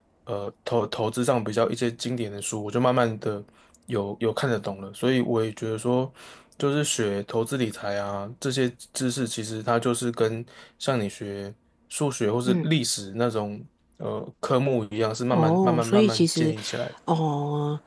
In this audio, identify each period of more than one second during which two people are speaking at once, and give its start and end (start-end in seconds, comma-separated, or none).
15.3-16.5